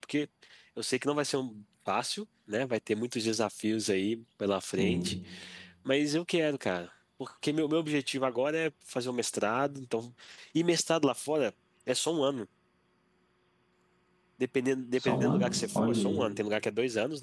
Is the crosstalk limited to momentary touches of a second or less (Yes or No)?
No